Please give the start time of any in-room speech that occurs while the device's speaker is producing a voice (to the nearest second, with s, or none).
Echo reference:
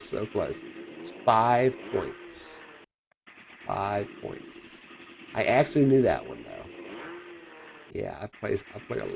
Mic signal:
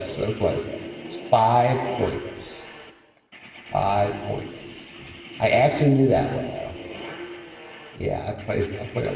none